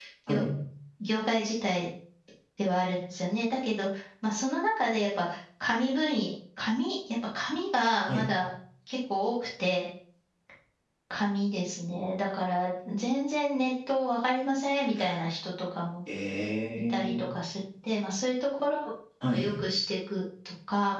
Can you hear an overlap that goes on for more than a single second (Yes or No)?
No